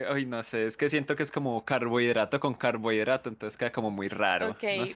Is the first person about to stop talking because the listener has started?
Yes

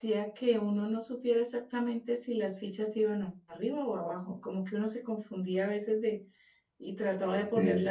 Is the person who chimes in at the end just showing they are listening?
Yes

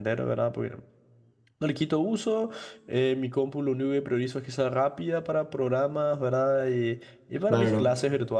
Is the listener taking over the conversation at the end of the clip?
No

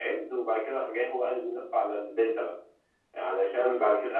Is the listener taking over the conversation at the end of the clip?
No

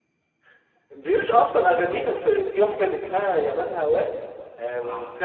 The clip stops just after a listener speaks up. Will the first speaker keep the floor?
No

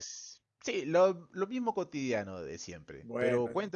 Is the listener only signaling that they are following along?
Yes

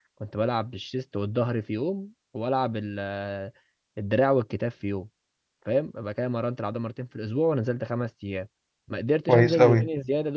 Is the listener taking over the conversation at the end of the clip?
No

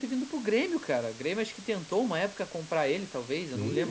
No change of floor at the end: No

